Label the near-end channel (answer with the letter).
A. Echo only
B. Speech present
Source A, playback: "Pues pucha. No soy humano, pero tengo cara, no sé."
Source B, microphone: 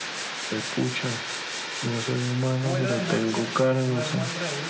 B